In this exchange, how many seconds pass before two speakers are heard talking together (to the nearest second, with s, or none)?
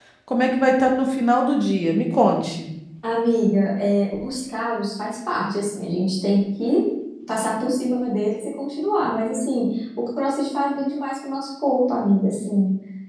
none